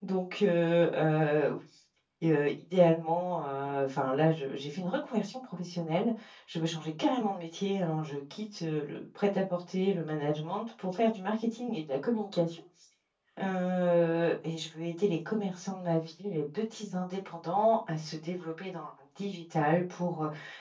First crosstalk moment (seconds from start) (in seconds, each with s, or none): none